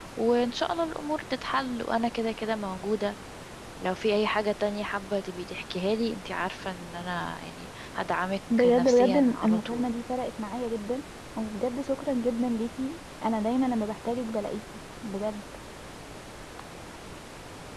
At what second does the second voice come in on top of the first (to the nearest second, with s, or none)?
9 s